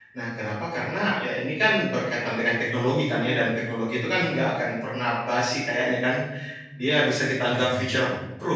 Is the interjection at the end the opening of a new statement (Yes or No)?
No